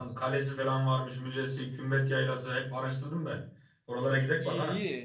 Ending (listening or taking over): taking over